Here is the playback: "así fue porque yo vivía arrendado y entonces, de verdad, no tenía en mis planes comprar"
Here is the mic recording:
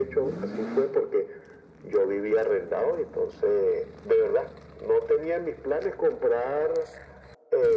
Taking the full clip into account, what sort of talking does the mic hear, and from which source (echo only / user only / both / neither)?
echo only